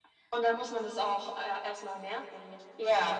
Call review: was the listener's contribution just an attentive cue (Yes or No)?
No